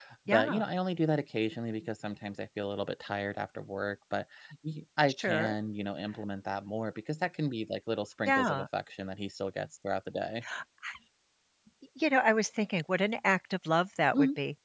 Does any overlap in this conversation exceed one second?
No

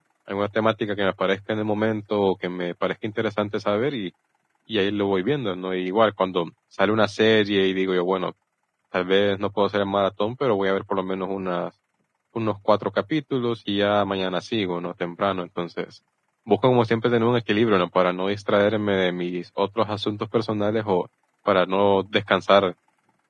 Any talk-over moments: No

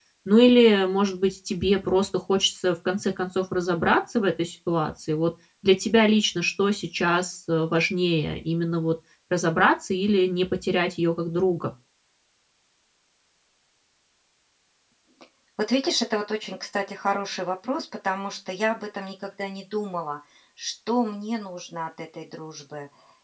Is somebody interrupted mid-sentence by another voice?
No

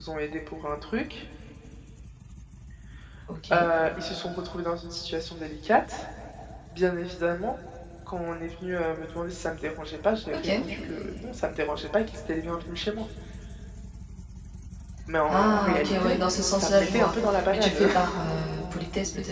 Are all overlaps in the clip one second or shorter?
No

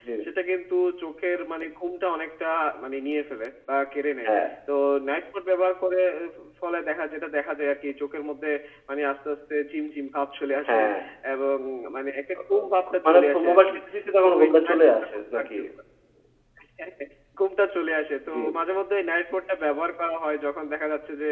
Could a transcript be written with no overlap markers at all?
No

